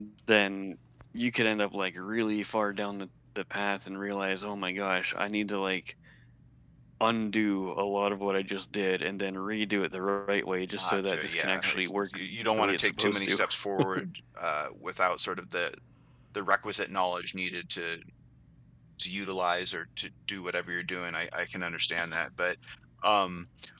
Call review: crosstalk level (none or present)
present